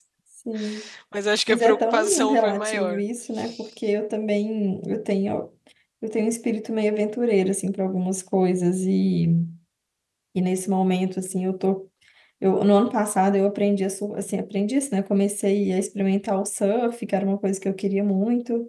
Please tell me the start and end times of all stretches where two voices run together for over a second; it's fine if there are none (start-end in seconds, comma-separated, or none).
1.5-3.0